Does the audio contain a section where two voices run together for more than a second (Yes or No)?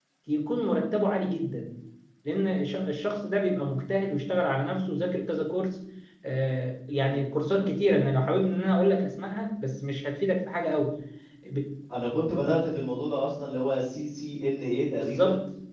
No